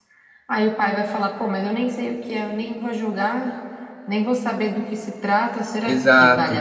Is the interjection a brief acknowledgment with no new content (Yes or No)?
No